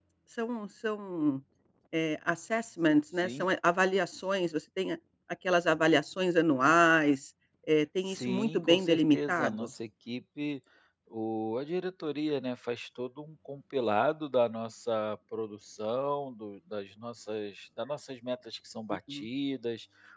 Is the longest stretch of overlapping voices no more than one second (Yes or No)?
No